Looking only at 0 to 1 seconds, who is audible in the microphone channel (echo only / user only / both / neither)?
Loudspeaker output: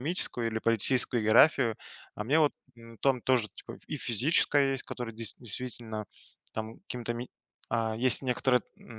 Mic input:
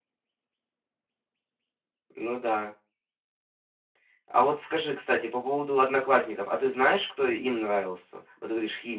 neither